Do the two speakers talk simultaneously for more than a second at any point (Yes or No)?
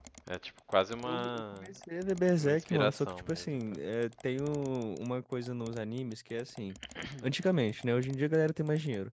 Yes